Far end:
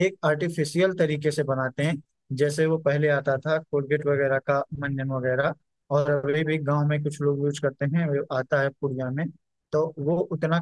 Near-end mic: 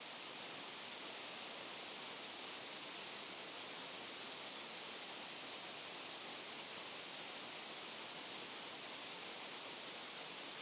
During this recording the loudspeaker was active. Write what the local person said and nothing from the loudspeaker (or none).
none